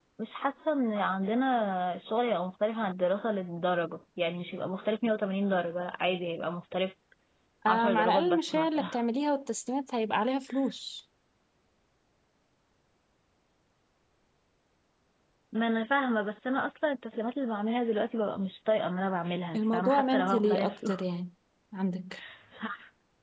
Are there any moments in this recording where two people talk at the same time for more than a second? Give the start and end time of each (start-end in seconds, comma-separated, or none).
7.7-8.9, 19.6-20.9